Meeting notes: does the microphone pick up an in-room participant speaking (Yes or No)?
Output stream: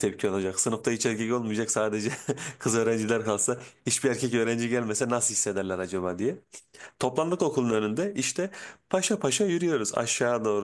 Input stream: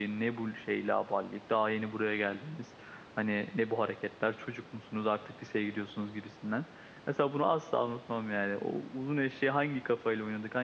Yes